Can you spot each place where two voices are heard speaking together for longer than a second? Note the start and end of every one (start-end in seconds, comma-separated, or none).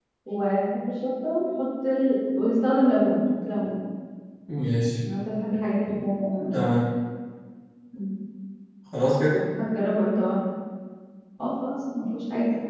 none